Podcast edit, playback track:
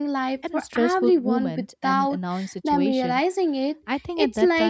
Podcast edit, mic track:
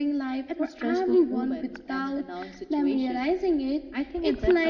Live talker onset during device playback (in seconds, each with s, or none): none